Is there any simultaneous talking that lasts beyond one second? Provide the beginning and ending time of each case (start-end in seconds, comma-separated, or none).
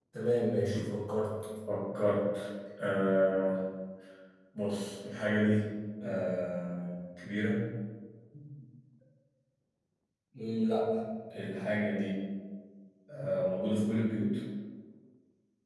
none